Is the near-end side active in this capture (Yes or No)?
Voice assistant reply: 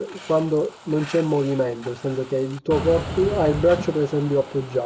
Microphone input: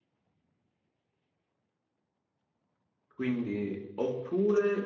Yes